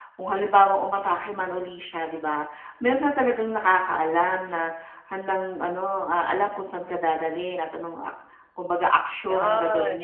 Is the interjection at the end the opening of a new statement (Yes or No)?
No